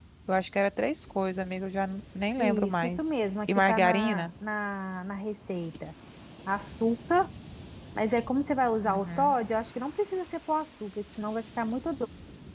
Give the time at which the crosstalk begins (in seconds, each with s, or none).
2.4 s